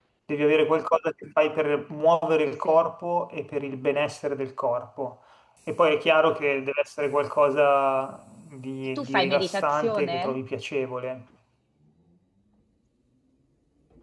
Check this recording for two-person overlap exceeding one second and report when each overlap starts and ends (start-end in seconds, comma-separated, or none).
9.0-10.4